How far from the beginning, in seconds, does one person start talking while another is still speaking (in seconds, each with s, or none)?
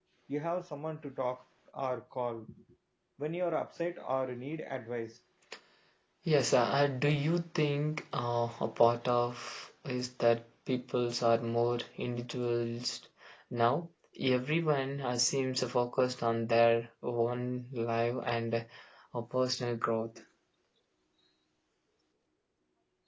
none